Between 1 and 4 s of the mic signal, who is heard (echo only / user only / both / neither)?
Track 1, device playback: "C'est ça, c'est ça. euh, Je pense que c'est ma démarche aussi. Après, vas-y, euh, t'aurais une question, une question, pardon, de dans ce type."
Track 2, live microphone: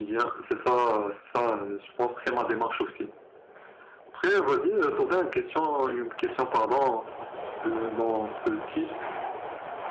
echo only